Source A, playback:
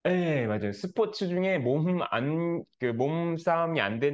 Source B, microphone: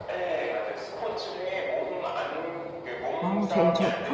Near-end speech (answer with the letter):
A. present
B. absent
A